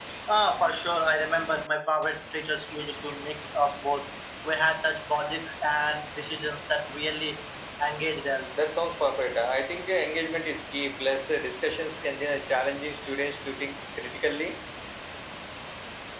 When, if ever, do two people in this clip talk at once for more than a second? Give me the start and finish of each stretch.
none

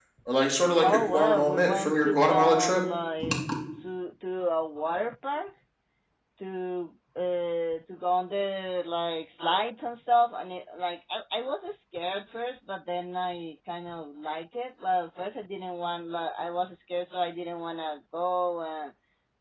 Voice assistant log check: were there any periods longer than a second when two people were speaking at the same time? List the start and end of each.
0.8-2.8

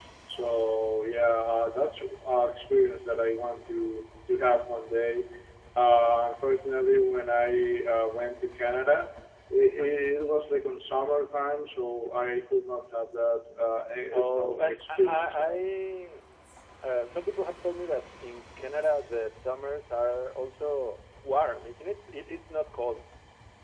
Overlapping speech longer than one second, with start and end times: 14.1-15.6

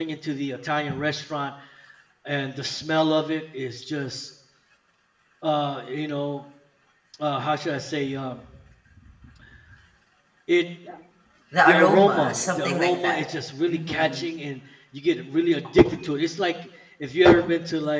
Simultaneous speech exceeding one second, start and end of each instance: 11.7-13.2

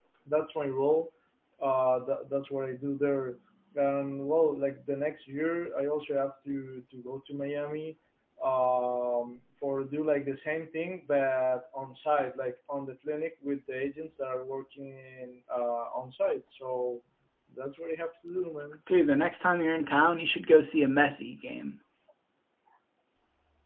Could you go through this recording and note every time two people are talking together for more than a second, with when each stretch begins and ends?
none

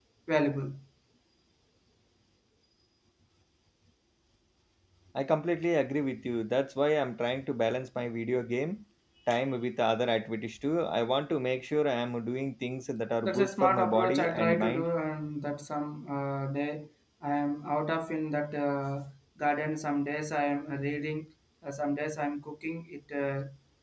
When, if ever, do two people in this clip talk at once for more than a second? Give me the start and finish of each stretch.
13.2-14.8

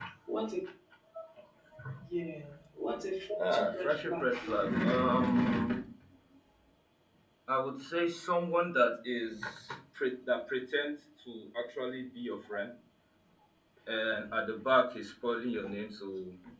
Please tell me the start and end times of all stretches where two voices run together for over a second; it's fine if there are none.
3.5-4.8

